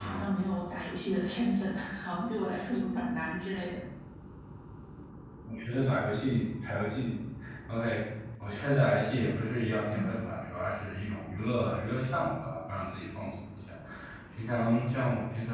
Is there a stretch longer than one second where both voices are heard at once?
No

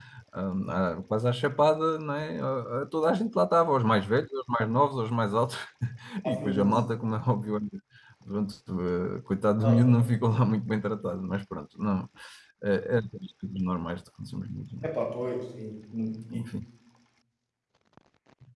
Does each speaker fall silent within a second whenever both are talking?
Yes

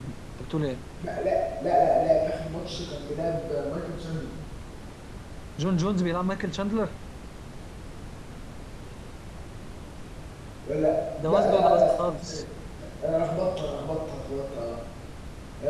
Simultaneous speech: Yes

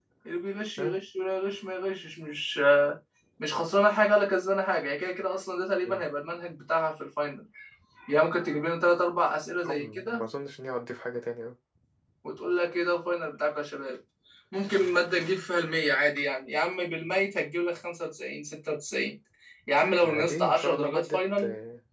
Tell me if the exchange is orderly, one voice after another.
No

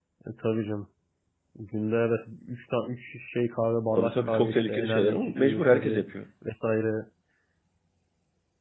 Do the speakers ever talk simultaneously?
Yes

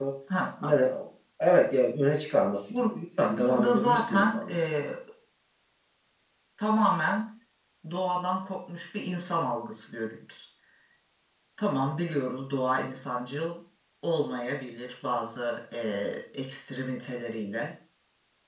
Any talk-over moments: Yes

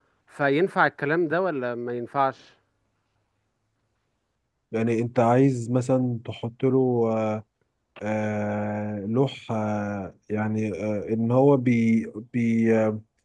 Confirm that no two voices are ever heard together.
Yes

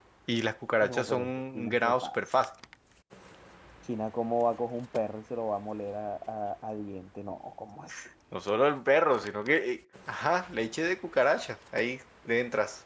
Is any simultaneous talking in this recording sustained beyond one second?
Yes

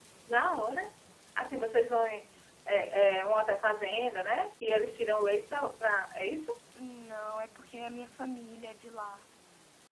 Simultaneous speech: No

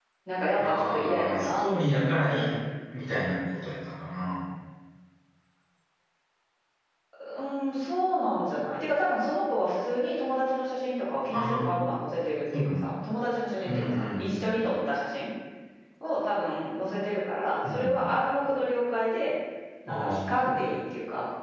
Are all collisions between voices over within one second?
No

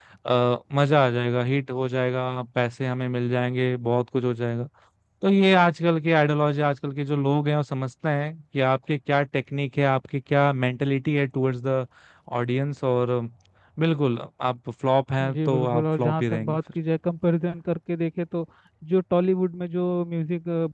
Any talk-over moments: Yes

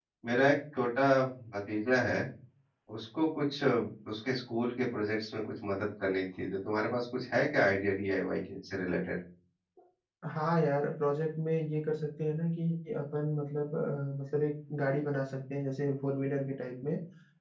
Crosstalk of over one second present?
No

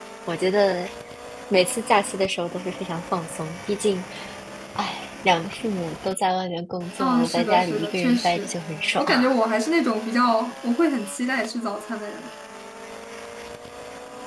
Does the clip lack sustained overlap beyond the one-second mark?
No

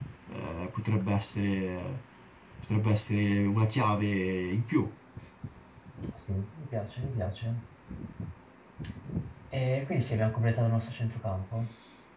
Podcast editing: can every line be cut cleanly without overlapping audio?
Yes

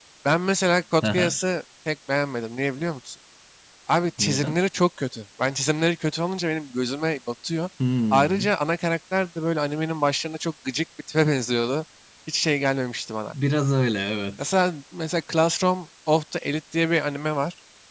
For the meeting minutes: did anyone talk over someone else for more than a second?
No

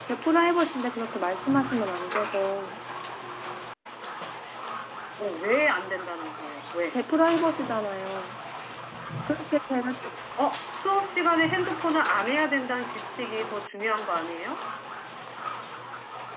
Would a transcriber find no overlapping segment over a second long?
Yes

